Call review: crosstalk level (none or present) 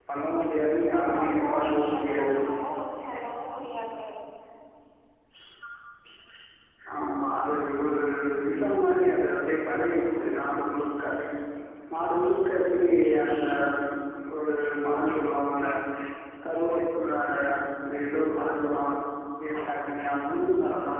present